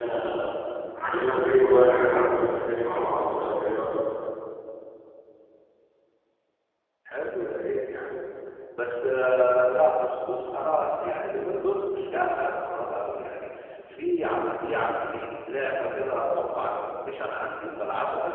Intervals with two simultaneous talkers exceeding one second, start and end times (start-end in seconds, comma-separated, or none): none